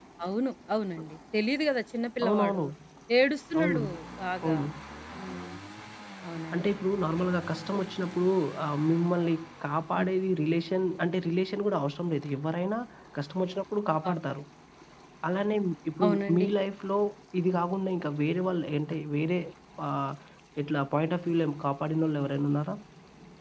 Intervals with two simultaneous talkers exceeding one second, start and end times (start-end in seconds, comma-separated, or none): none